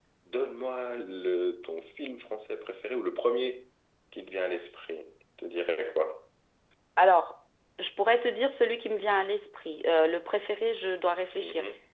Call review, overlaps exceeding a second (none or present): none